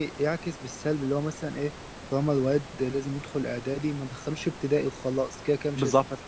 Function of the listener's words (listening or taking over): taking over